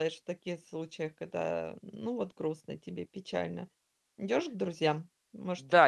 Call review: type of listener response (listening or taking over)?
taking over